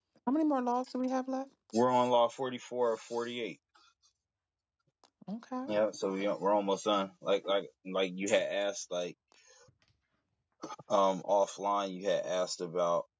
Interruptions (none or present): none